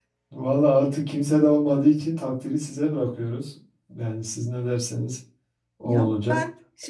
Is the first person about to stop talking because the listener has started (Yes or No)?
Yes